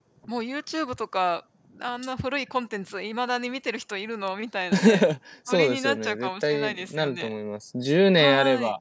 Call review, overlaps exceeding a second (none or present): present